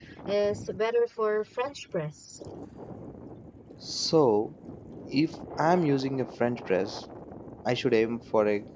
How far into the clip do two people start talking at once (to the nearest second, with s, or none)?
none